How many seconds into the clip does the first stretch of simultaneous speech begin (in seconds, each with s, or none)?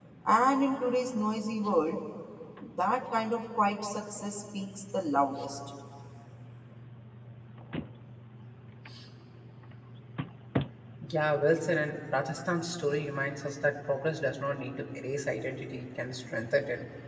none